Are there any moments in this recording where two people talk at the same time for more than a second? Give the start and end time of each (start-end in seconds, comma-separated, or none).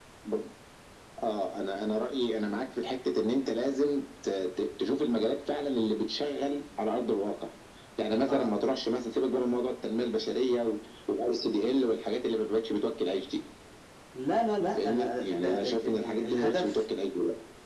14.8-16.8